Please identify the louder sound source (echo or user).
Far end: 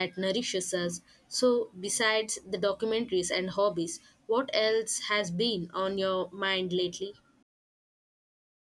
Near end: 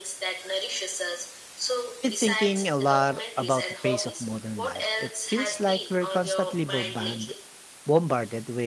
user